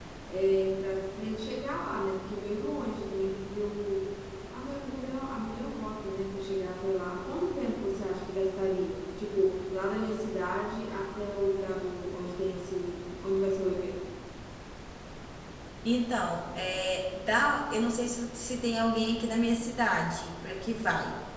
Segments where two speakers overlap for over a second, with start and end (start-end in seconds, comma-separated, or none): none